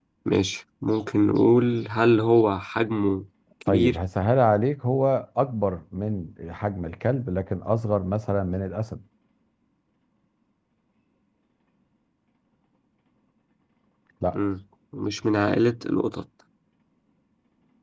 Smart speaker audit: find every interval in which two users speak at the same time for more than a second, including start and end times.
none

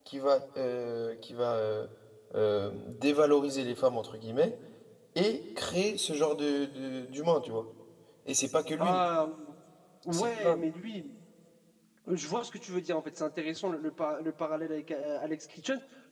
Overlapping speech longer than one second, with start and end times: none

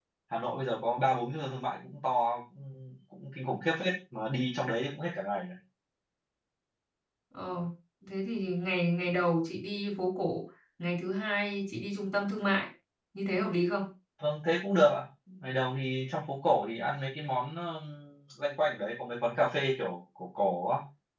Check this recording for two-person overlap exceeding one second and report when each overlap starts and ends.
none

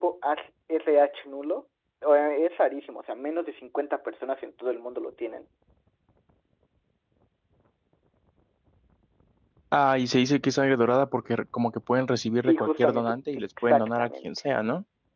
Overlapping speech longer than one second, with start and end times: 12.4-14.3

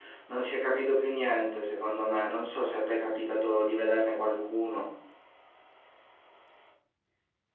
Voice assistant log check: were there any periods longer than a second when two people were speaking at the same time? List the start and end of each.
none

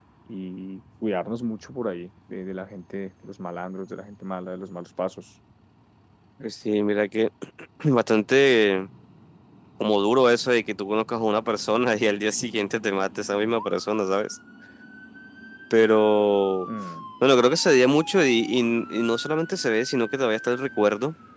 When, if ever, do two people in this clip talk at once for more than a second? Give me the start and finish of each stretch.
none

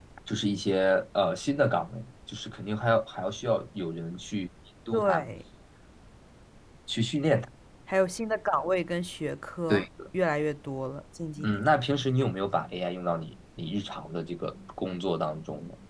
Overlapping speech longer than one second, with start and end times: none

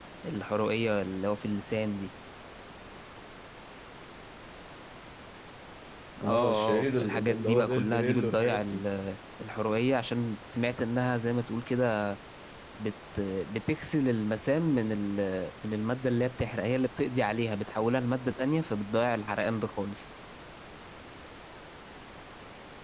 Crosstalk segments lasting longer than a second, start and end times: 6.2-8.8

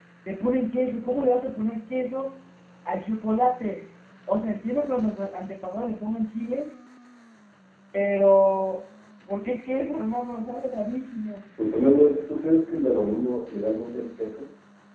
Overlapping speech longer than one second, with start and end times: none

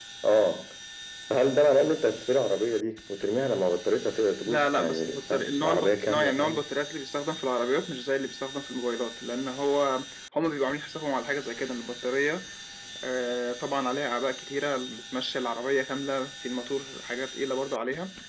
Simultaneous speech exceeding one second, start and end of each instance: 4.4-6.6

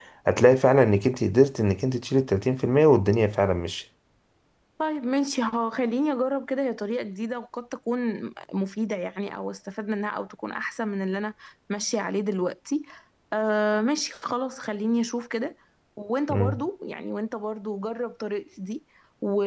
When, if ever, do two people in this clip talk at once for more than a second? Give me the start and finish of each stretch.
none

